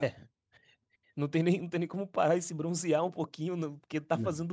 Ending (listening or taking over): listening